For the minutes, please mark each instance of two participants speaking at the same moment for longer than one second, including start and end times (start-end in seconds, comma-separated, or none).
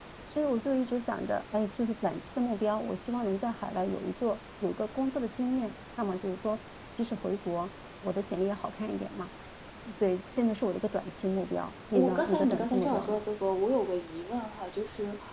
11.9-13.2